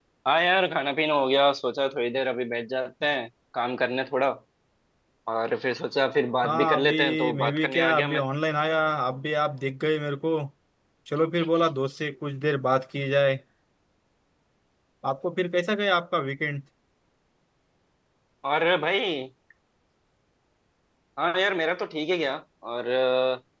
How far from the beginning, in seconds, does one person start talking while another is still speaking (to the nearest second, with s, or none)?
6 s